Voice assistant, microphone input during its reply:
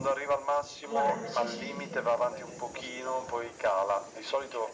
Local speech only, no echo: Allora, sì, sì, sì, sì.

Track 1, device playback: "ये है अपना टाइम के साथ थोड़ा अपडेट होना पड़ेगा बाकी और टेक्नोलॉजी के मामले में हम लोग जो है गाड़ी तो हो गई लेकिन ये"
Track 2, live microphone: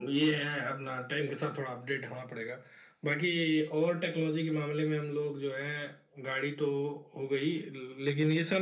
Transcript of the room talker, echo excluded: none

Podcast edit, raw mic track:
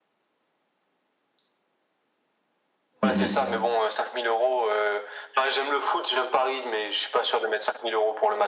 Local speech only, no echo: Mhm.

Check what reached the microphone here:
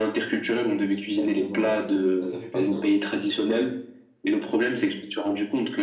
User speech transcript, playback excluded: Exactement. Bah, ça fait plaisir.

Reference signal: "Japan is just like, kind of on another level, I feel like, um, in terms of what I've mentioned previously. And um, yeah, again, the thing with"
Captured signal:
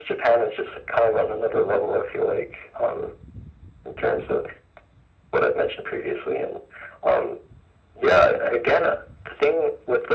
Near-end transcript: none

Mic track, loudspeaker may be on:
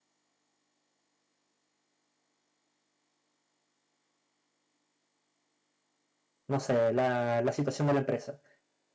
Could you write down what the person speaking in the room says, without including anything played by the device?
no sé, la, la situación de la empresa.

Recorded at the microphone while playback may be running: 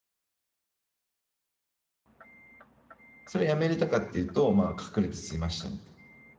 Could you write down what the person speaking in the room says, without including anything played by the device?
それやめれたかっていうと、まあ、隠れて吸いましたね。

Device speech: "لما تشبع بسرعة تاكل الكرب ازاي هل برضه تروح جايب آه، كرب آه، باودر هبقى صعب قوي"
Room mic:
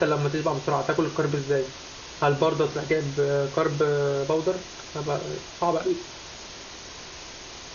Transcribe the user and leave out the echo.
none

